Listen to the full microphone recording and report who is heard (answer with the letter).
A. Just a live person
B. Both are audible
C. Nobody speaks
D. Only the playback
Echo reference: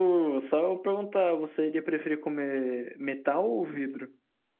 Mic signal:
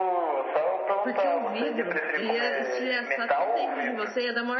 B